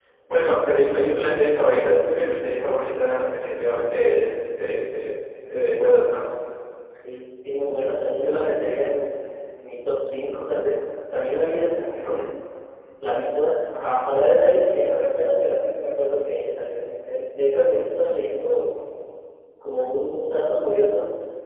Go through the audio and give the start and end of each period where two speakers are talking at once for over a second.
none

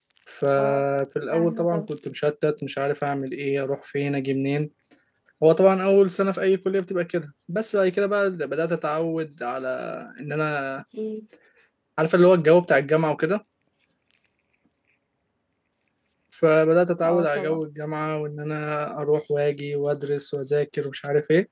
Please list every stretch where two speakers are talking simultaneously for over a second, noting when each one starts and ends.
none

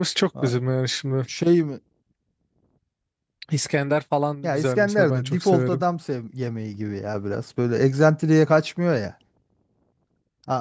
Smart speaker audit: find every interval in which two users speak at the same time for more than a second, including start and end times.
4.4-5.8

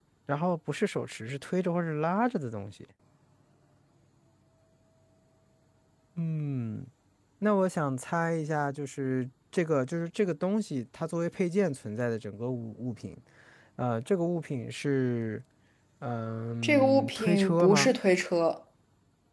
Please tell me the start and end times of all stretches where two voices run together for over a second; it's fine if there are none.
16.6-17.9

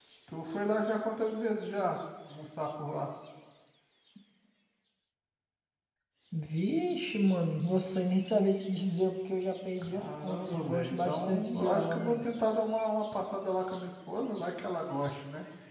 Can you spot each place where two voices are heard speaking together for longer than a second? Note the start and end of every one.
9.8-12.2

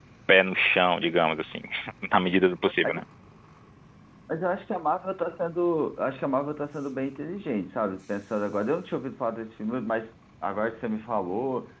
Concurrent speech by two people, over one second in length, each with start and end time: none

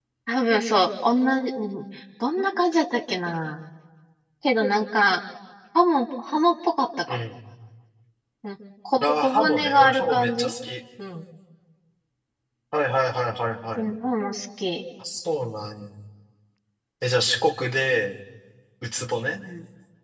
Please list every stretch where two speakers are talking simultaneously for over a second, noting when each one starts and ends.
9.0-10.4

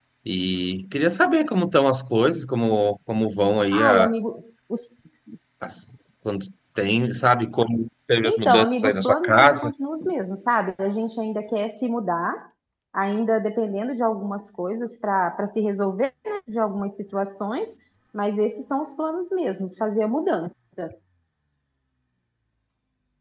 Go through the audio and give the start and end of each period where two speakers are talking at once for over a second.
8.2-9.7

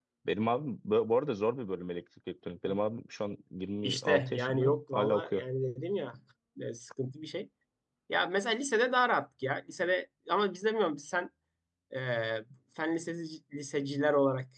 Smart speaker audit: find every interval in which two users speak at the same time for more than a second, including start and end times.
3.8-5.4

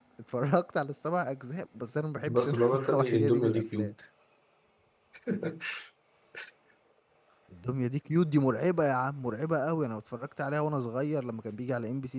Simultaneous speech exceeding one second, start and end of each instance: 2.3-3.9

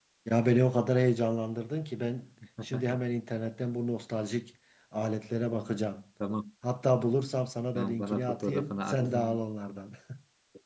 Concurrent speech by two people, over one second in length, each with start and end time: 7.7-9.1

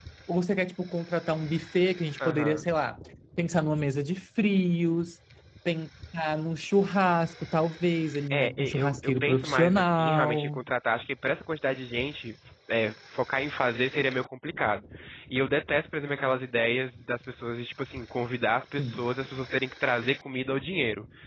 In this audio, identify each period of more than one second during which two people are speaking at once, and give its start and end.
8.3-10.6

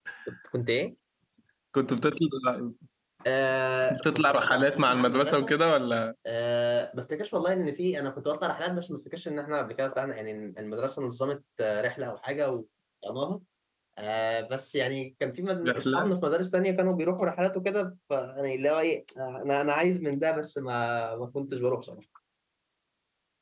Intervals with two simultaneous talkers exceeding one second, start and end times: 3.9-5.5

